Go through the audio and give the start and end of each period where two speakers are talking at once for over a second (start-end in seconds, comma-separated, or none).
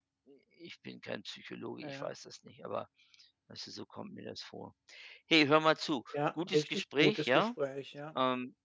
6.1-7.5